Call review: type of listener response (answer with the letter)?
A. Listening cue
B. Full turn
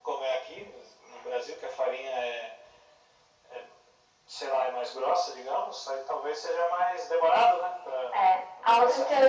B